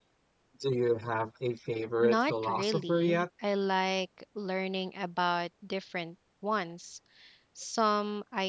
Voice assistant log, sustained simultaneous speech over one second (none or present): present